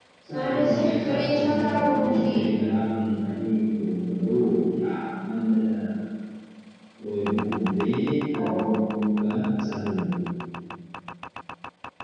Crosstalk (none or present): present